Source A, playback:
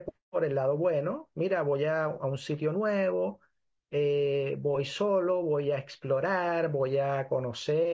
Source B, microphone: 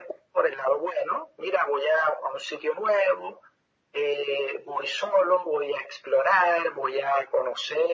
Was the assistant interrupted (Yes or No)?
No